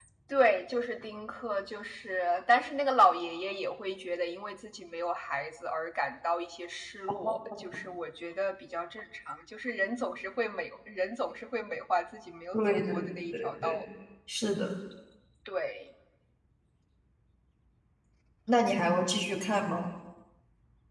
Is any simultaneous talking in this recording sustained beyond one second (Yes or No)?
Yes